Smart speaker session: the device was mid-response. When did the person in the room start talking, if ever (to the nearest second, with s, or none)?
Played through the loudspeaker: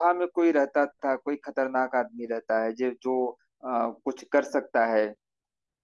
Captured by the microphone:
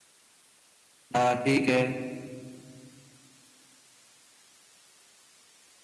1 s